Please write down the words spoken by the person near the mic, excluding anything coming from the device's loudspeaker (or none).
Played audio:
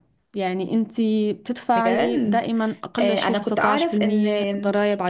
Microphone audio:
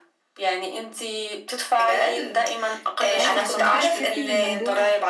اه فعشان كده تحسي ان الموضوع